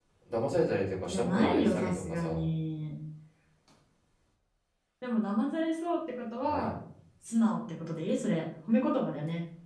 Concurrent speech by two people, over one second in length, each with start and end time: 1.1-2.4

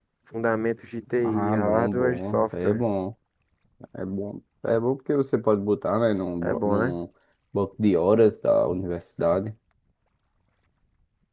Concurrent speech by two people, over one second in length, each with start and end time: 1.2-2.8

